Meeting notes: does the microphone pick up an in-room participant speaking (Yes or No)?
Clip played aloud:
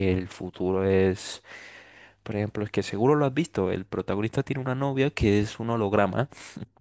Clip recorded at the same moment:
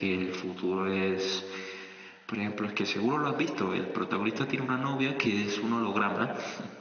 No